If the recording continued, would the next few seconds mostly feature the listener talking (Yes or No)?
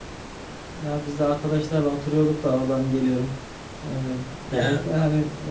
No